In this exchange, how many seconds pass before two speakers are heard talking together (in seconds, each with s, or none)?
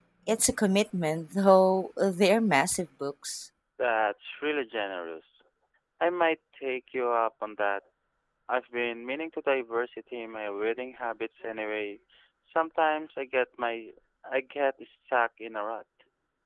none